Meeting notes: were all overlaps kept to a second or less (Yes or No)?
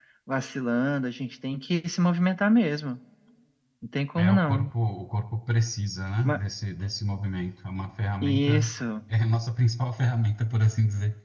Yes